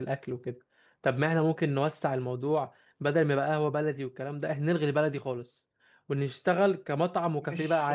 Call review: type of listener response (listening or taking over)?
taking over